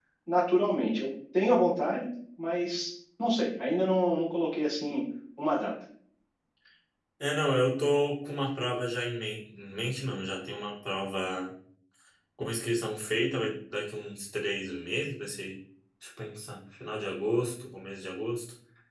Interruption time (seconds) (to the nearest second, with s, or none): none